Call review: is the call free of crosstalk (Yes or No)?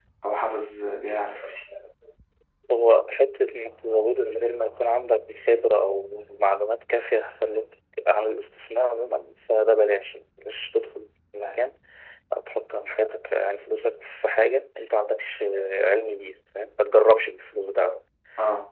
Yes